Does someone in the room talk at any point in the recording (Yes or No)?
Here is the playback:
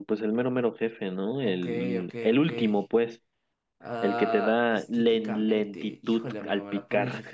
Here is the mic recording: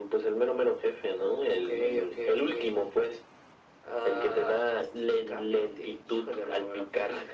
No